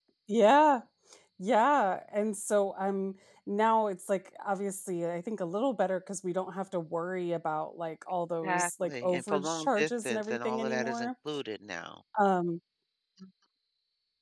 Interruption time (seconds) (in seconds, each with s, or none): 8.4 s